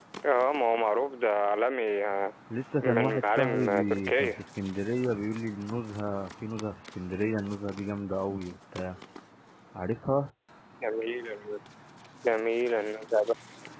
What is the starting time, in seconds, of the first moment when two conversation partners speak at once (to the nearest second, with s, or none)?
3 s